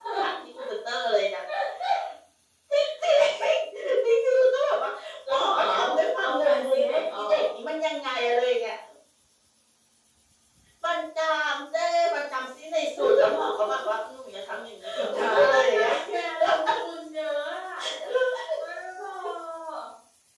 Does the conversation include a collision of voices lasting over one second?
Yes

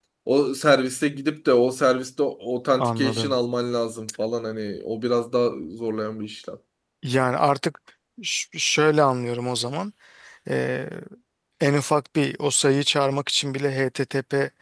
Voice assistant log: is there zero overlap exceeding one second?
Yes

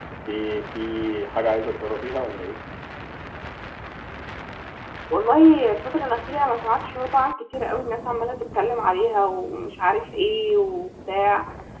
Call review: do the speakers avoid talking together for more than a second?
Yes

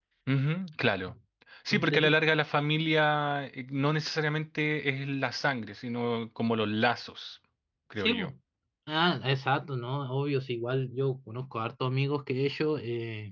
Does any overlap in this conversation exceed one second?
No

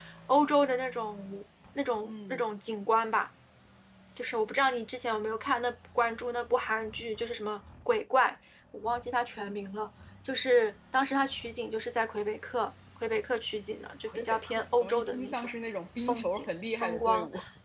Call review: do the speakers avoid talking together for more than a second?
No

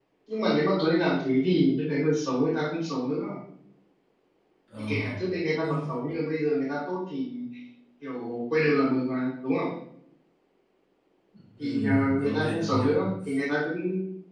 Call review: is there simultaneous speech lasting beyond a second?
Yes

